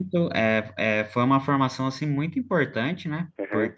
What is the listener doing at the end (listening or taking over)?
listening